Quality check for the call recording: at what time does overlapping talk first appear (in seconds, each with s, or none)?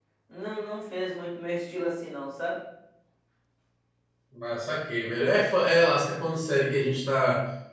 none